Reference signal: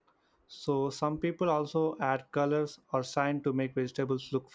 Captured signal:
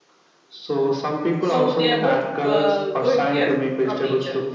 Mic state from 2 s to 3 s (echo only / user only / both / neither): both